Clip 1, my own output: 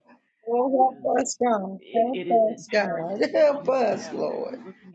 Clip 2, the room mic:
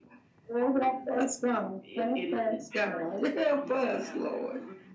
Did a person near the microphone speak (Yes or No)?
No